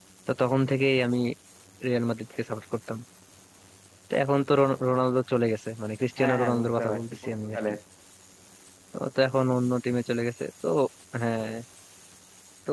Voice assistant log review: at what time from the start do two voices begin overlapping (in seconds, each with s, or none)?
6.2 s